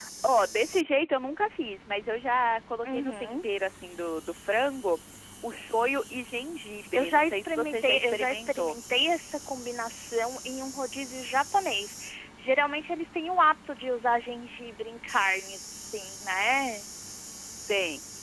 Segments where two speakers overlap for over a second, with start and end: 6.9-8.8

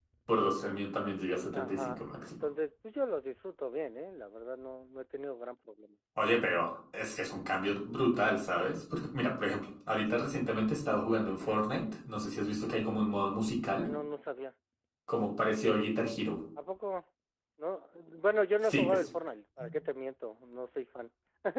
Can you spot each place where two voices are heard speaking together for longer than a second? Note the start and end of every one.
0.8-2.4

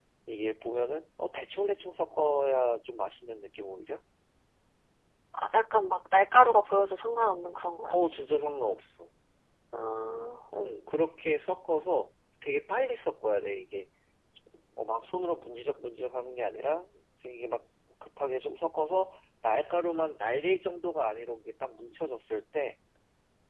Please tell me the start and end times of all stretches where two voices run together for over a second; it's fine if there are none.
none

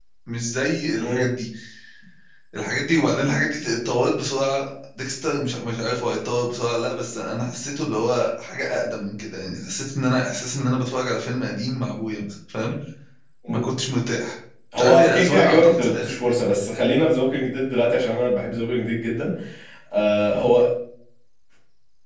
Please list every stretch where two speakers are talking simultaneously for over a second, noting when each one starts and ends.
14.8-16.2

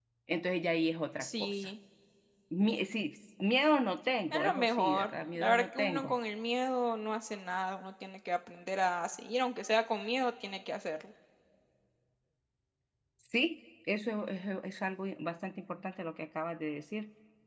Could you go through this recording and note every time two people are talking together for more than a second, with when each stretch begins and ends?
4.3-6.1

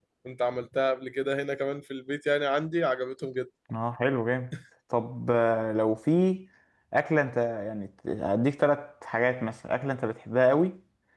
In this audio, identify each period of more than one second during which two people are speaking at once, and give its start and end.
none

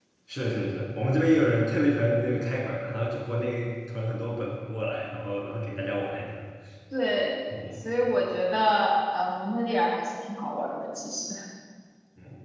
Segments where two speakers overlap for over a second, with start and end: none

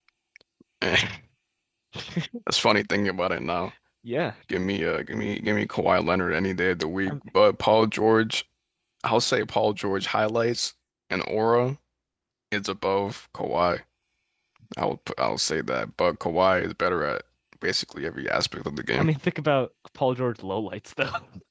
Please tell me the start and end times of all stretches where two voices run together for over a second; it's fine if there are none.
none

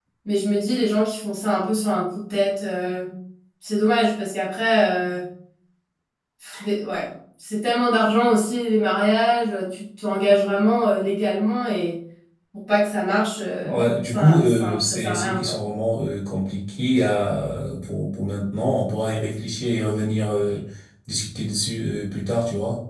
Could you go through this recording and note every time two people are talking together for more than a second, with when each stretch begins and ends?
13.6-15.6

